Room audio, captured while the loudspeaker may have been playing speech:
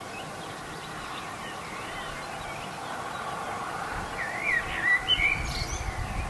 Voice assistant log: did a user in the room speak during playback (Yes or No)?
No